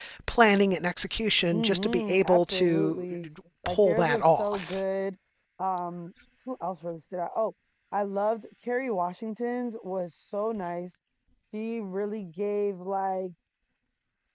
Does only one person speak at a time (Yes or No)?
No